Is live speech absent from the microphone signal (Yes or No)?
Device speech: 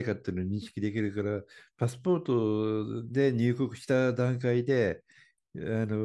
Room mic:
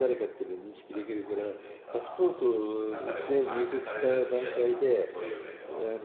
No